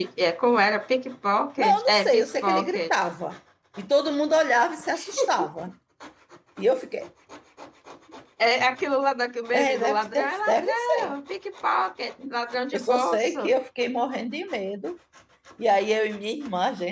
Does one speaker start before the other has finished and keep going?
Yes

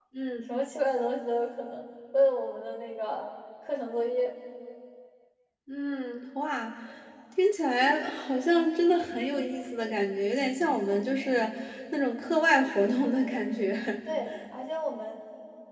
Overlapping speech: No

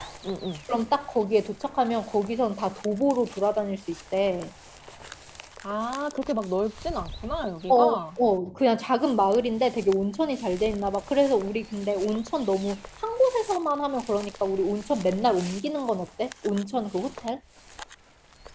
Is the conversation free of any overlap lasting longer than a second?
Yes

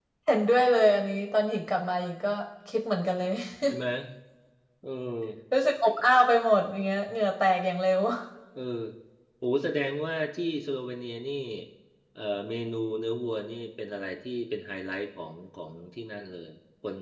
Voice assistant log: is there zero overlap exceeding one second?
Yes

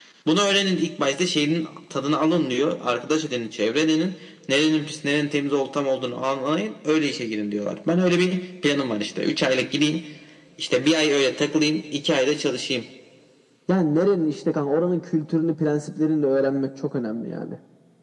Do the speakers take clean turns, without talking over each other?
Yes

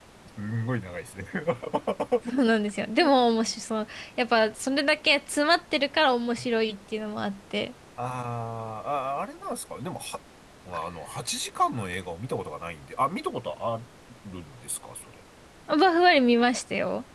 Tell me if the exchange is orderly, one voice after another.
Yes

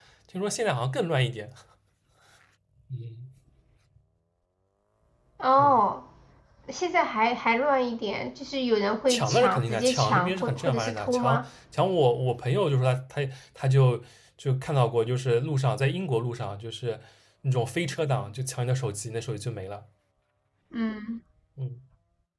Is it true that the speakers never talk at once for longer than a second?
No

